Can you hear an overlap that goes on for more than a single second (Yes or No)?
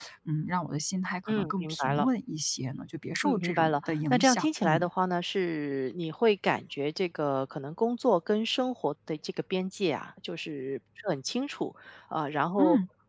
Yes